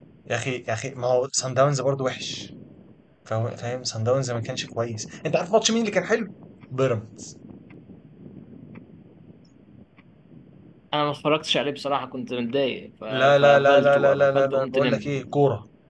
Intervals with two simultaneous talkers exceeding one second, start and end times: 13.4-15.1

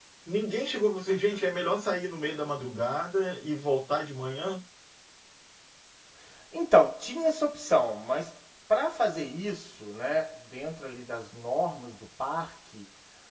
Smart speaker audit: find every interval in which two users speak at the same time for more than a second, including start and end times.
none

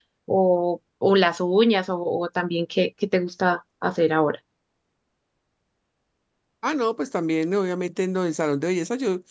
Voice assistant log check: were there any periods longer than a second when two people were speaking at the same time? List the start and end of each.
none

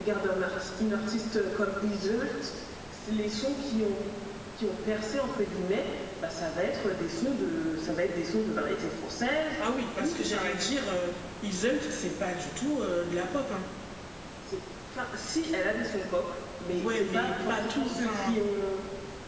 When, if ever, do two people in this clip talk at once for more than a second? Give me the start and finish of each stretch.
16.7-18.4

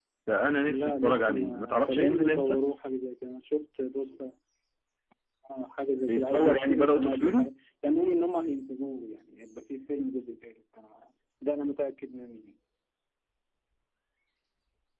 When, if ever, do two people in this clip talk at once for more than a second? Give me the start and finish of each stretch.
0.7-2.6, 6.1-7.5

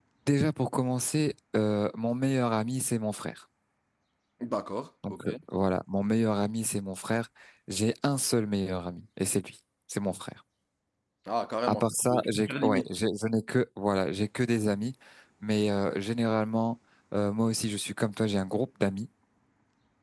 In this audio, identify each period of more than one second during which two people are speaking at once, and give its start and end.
11.7-12.9

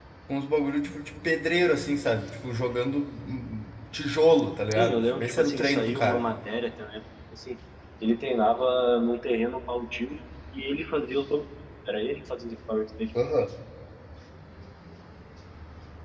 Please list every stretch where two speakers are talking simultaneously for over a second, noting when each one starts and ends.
4.8-6.3

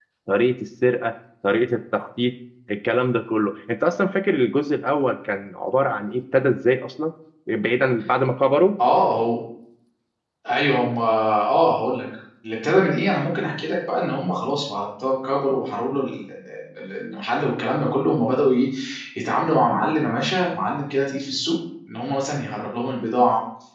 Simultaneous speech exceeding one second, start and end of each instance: none

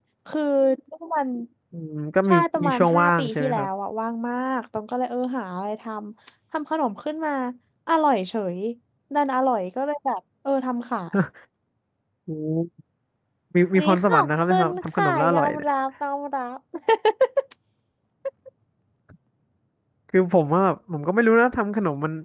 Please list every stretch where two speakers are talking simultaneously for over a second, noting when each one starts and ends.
2.3-3.7, 13.7-15.7

